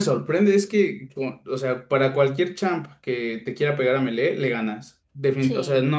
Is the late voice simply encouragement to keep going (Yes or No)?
Yes